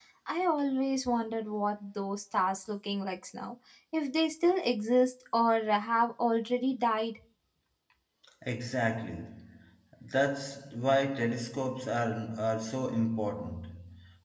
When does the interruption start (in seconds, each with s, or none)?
none